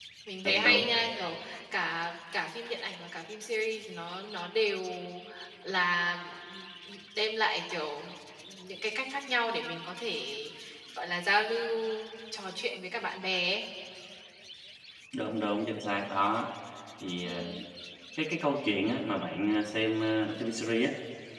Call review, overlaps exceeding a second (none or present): none